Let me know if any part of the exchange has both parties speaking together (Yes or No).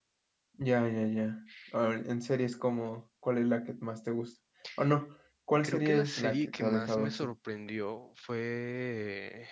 Yes